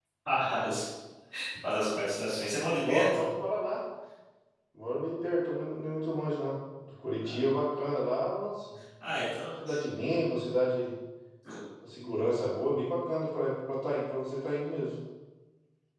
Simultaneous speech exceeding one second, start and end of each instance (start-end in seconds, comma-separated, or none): none